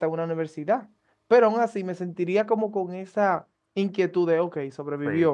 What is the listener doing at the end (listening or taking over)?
taking over